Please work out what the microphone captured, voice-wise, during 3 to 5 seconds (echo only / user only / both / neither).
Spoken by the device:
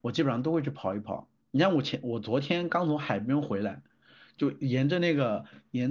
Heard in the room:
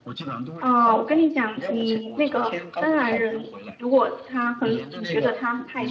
both